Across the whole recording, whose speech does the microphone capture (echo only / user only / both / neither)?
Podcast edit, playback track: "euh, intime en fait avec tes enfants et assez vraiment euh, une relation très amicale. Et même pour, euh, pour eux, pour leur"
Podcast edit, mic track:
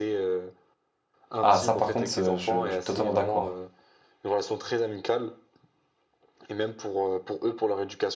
both